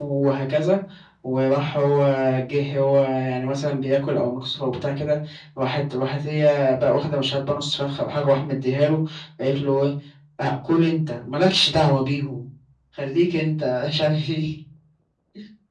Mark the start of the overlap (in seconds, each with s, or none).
none